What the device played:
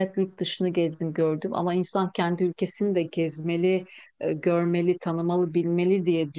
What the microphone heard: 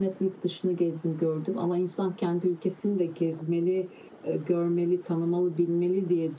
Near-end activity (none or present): none